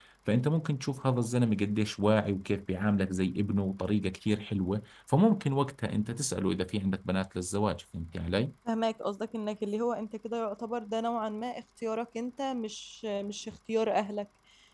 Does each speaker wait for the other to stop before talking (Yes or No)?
Yes